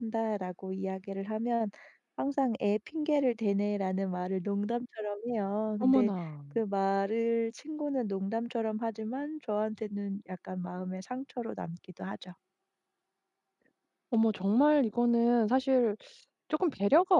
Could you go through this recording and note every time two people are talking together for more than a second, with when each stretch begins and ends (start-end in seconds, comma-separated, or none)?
none